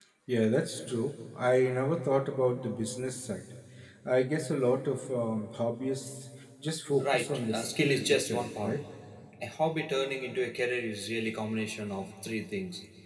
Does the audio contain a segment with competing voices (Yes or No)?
Yes